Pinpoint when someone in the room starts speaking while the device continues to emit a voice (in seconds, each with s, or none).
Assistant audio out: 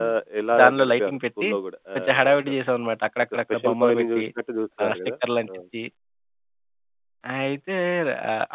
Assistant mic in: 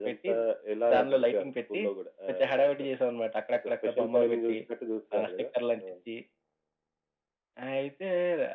none